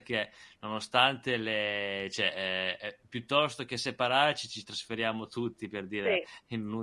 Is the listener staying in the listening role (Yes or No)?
Yes